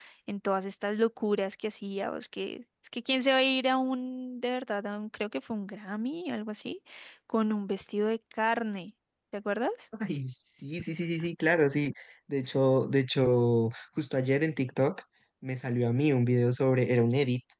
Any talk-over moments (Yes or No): No